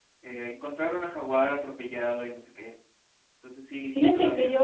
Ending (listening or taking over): taking over